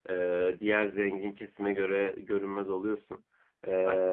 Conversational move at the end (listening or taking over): listening